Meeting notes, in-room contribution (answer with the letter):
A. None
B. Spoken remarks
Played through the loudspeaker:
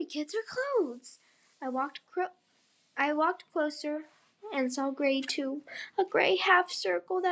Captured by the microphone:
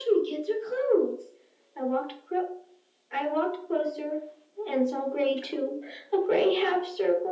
A